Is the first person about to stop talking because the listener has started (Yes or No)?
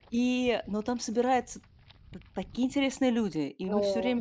No